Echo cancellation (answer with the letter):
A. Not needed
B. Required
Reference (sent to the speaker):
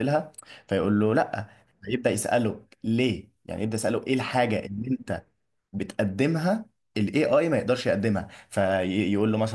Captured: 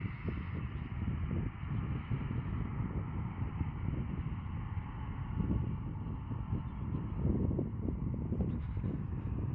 A